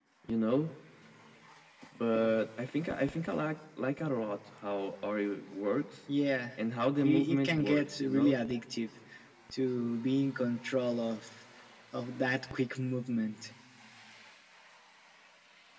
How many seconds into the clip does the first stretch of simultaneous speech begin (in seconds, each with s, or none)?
7.0 s